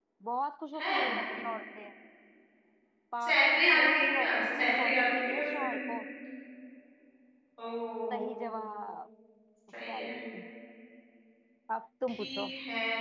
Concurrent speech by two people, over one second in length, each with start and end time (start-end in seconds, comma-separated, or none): 3.2-5.8